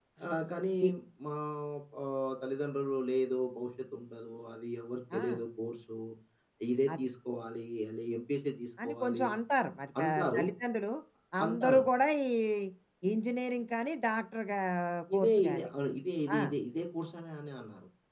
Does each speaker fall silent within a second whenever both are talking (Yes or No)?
Yes